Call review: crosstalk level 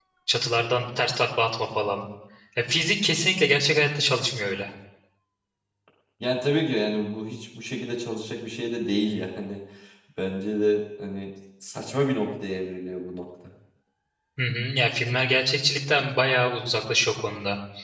none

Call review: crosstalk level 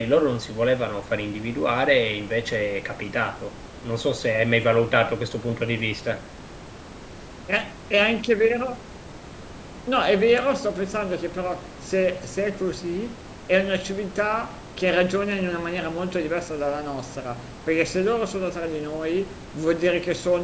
none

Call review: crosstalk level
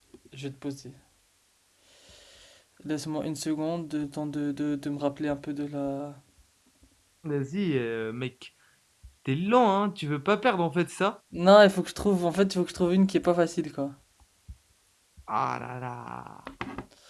none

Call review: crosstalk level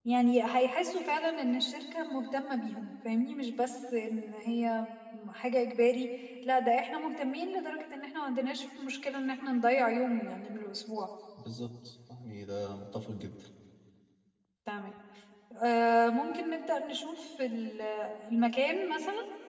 none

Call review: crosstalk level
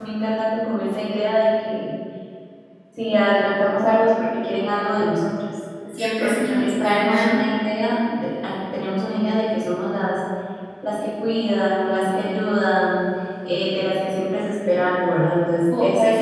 present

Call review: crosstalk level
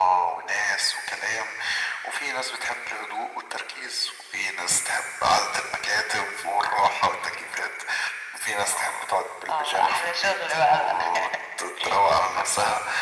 present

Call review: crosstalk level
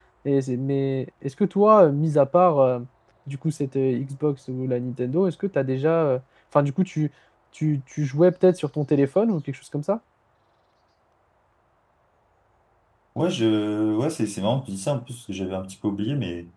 none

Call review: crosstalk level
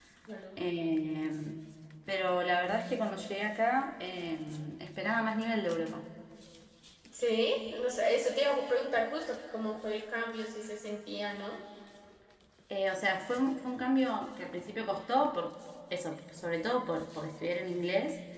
none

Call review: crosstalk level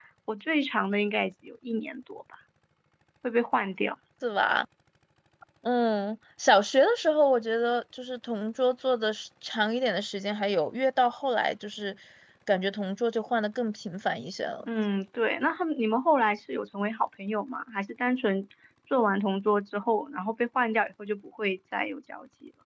none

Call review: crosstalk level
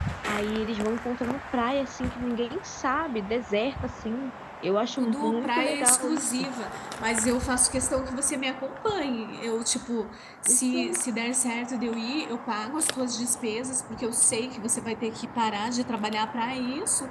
present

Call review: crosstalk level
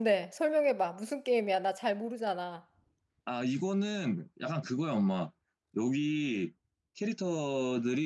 none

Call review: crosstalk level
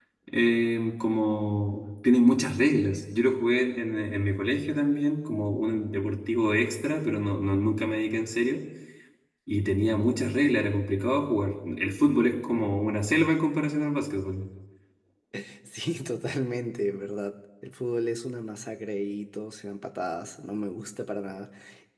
none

